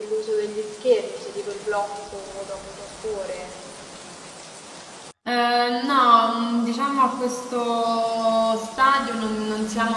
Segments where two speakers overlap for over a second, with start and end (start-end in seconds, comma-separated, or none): none